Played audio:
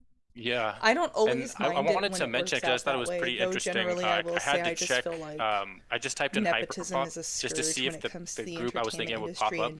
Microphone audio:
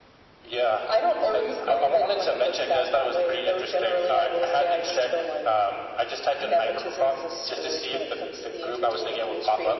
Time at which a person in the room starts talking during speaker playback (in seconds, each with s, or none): none